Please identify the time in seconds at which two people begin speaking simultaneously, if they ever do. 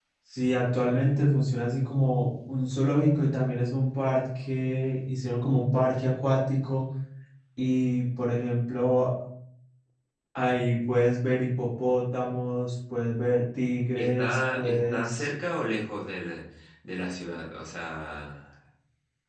14 s

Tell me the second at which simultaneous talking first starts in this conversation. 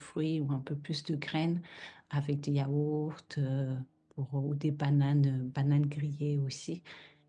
none

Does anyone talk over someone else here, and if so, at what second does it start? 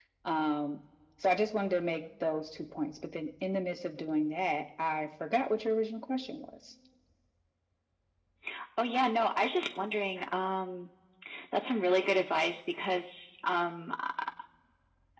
none

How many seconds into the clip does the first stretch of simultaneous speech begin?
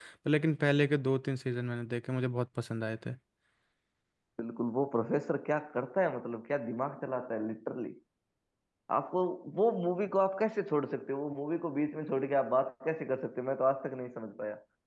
none

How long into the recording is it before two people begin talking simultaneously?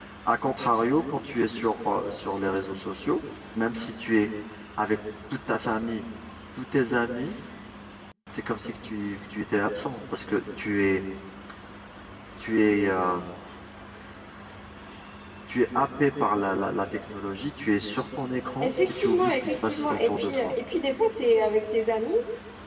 19 s

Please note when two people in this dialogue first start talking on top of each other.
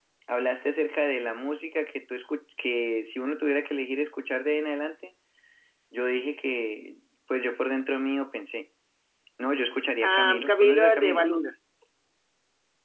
10 s

